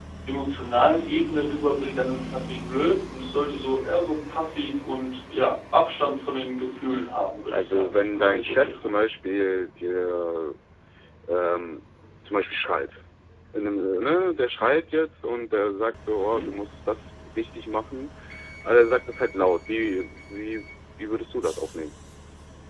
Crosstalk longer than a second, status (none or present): present